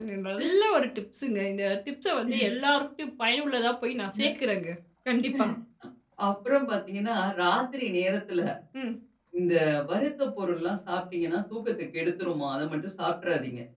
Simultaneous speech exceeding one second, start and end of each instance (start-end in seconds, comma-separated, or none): none